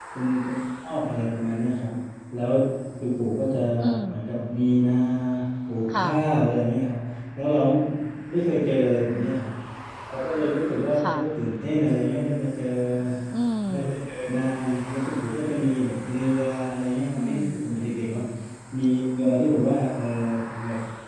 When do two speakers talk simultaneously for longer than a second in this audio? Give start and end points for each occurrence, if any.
none

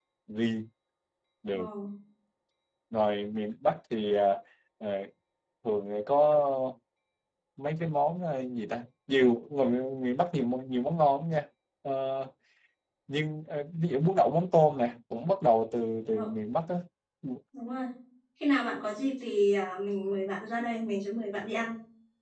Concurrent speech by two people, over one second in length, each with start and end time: none

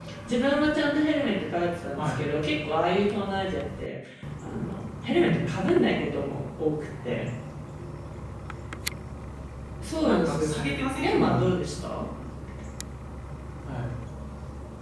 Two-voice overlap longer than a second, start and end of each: 10.0-11.4

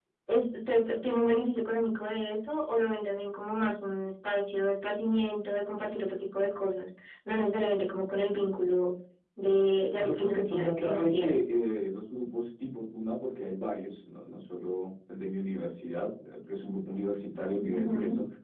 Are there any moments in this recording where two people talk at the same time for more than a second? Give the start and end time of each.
10.0-11.3

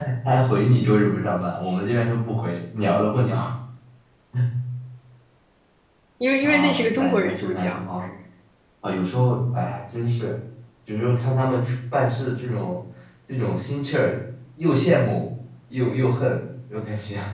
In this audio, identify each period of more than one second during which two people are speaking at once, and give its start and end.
6.4-7.8

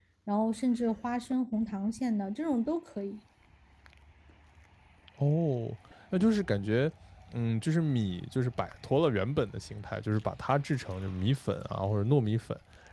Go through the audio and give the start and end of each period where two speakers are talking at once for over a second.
none

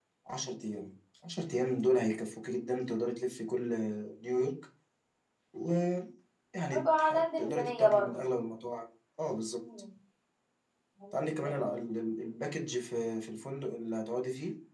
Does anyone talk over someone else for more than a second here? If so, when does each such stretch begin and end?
6.7-8.2

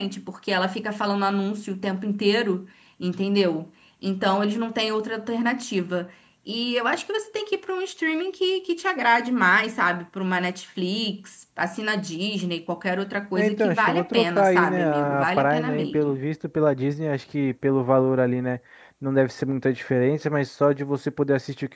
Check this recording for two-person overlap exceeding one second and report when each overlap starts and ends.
13.4-16.2

